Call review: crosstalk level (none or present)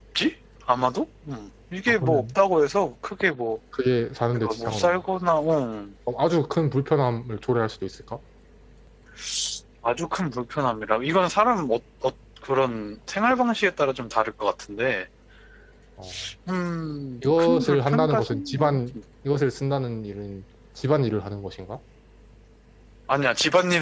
present